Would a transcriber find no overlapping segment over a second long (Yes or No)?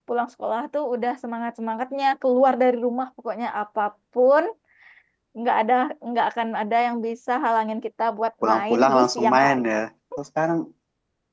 No